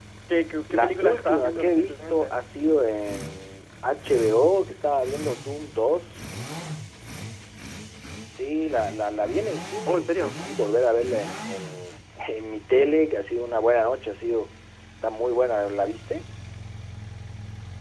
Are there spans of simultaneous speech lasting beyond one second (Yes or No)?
Yes